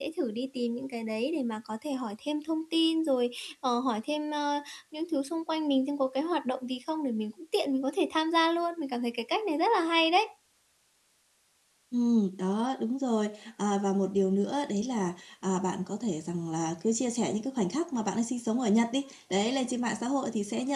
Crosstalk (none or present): none